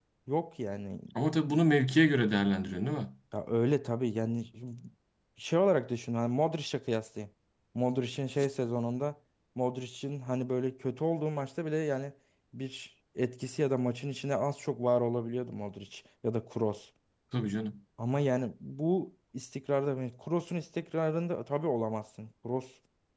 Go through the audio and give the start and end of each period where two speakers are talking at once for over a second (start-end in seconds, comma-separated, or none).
none